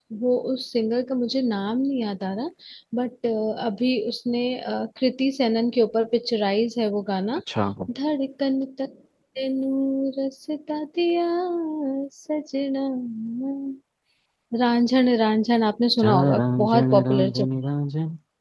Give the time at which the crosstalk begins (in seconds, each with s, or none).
16.0 s